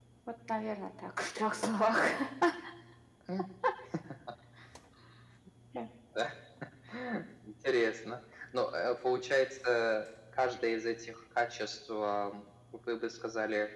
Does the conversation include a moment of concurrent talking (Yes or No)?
No